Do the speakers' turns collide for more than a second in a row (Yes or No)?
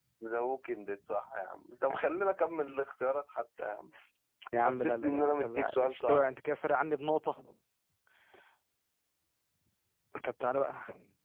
Yes